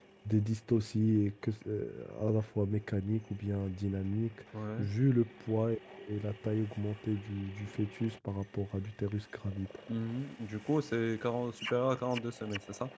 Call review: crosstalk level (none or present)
none